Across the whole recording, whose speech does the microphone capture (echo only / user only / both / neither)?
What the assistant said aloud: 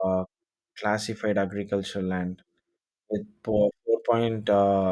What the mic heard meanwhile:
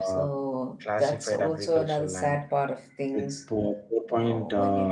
both